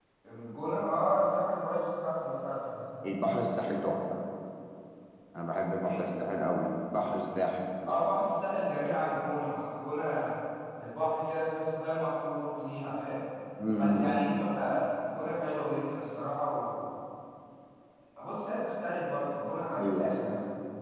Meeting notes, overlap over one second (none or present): none